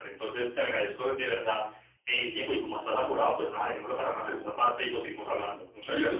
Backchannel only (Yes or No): No